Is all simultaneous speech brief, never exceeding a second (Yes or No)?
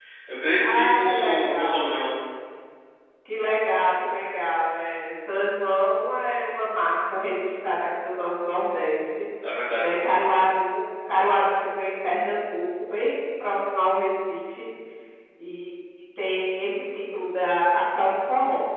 No